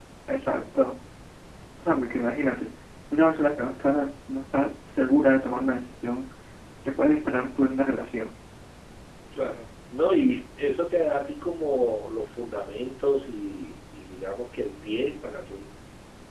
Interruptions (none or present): none